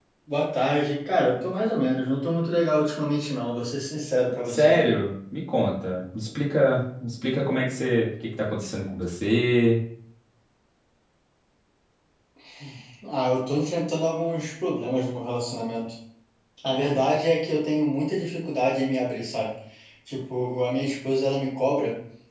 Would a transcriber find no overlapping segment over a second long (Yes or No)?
Yes